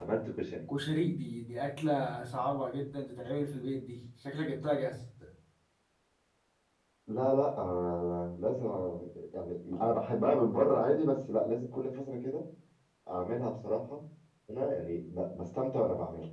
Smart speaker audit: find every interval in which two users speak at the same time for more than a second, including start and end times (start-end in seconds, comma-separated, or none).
none